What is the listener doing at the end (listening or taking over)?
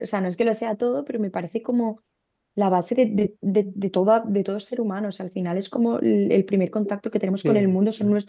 taking over